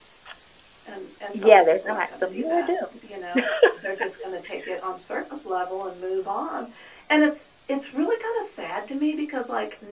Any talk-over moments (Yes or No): Yes